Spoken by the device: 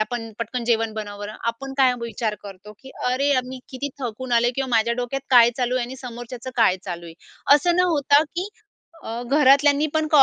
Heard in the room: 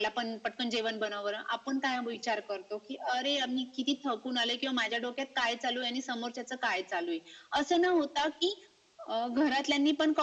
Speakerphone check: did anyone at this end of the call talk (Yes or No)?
No